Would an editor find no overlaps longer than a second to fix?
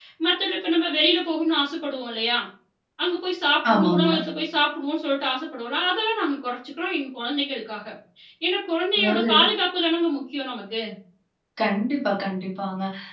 Yes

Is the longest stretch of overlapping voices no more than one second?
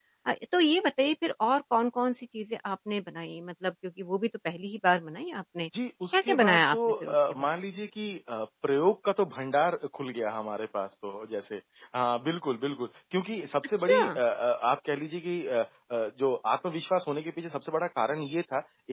No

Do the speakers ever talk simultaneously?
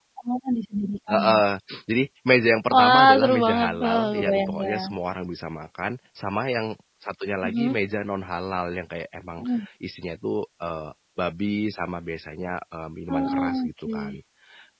Yes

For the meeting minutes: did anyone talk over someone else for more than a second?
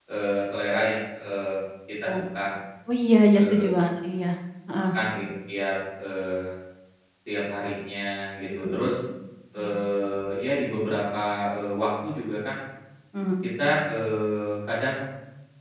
No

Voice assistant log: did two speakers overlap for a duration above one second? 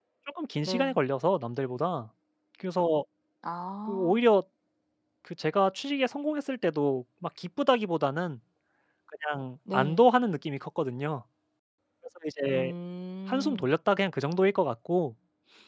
No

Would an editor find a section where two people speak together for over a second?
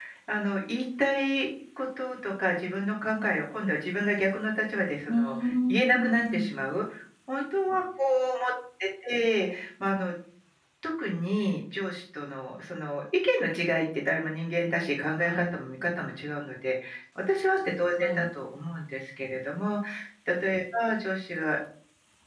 Yes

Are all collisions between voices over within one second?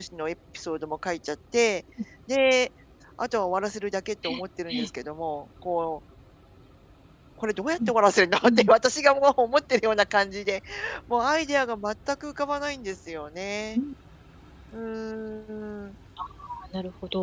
Yes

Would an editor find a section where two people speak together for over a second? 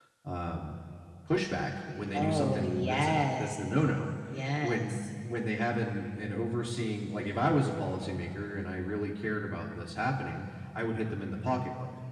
Yes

